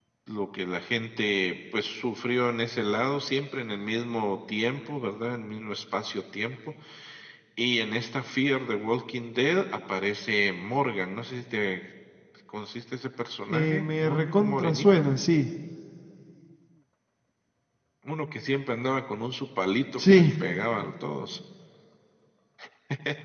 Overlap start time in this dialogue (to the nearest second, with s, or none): 13 s